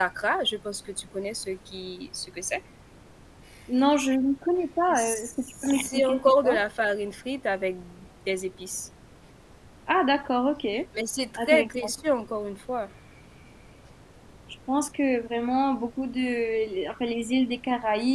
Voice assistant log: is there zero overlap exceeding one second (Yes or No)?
No